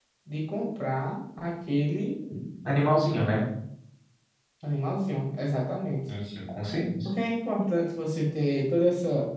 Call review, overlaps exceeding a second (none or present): none